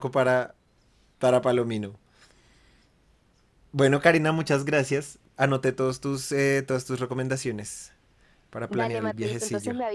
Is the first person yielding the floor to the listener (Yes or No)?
Yes